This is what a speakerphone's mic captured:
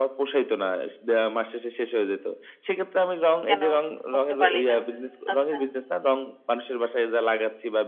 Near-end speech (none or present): present